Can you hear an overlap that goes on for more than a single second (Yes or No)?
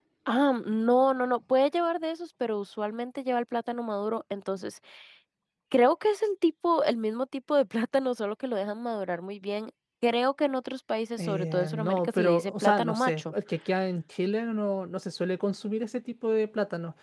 Yes